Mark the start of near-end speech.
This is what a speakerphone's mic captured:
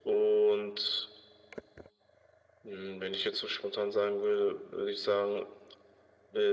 none

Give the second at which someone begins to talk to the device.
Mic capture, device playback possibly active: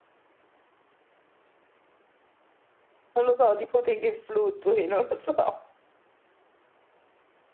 3.2 s

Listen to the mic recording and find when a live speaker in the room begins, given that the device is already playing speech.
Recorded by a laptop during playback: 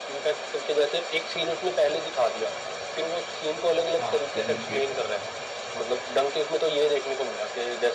4.0 s

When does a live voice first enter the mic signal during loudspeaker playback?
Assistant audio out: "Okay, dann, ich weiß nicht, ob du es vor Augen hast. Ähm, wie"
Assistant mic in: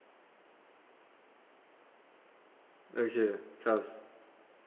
3.0 s

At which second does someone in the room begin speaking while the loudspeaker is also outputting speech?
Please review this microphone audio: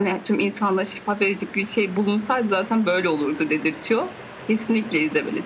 none

